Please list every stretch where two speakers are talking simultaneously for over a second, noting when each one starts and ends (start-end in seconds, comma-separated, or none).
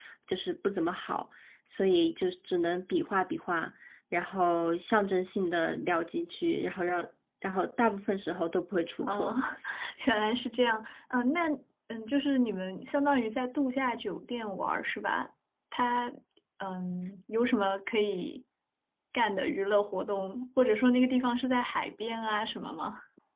none